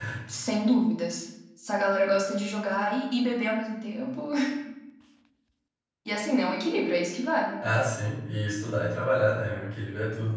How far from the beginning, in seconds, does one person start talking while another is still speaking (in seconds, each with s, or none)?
none